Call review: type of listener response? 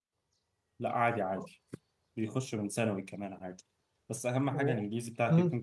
listening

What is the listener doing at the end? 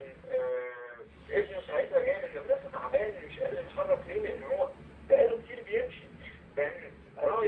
listening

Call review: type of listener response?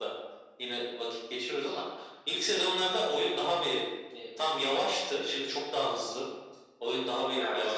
listening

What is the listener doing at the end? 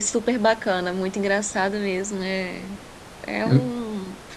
listening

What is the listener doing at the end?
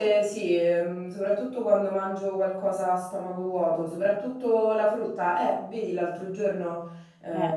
listening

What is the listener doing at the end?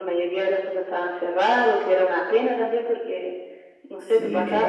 listening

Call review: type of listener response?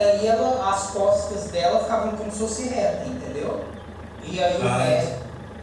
listening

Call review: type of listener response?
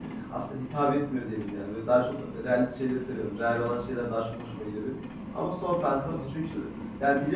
listening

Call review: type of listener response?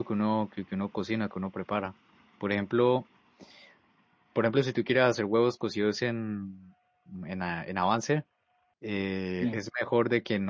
listening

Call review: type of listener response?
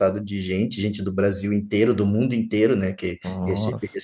listening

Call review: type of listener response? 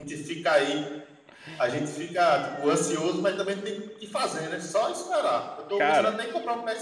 listening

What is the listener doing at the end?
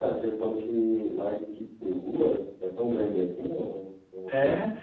taking over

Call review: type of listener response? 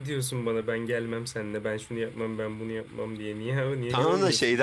taking over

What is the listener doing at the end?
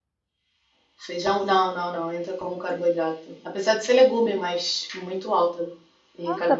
taking over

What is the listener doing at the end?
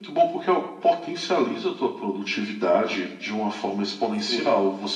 listening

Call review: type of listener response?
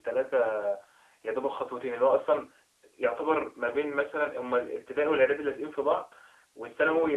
listening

